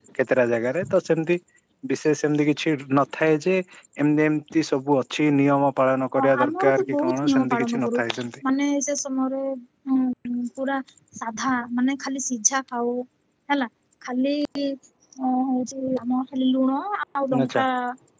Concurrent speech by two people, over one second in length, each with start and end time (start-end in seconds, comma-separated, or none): 6.2-8.0